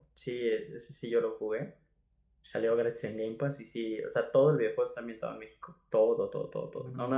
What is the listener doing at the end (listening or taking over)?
listening